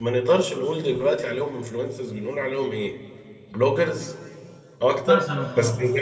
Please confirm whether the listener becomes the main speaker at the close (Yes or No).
No